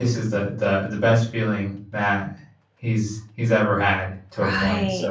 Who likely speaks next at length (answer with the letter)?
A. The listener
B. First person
A